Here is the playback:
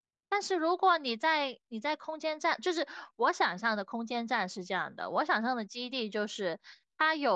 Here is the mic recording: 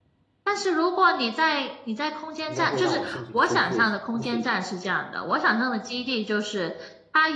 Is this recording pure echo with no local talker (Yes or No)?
No